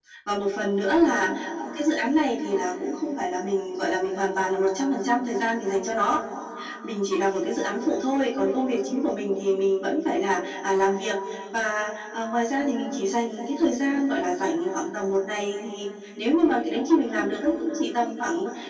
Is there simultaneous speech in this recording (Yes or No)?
No